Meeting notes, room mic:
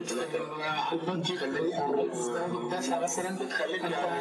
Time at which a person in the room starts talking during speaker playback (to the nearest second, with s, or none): none